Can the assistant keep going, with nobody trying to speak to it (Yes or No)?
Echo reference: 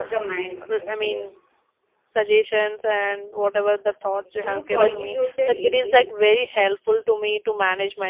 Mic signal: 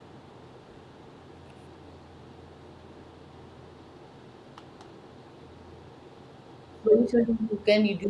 No